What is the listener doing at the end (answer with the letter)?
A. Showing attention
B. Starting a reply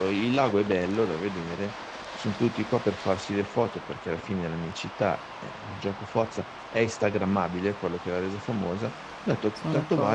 A